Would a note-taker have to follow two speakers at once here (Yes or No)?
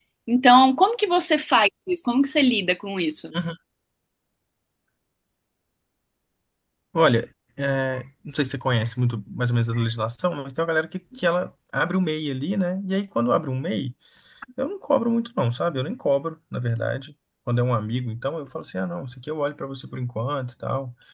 No